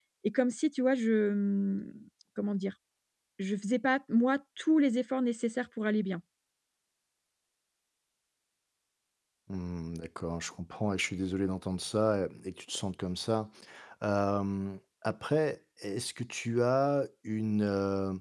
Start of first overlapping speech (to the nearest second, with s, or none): none